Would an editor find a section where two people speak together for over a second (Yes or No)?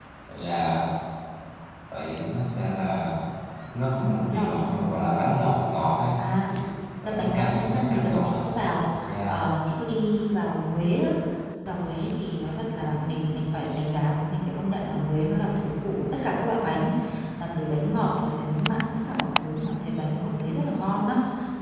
Yes